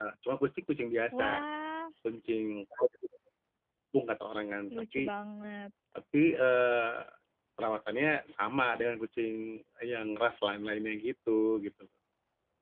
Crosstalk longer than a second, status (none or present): none